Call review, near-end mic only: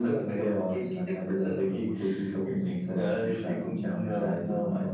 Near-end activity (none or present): none